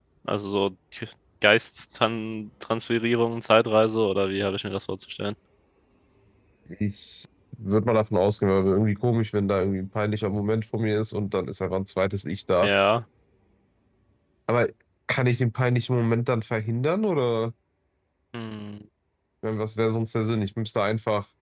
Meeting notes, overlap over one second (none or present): none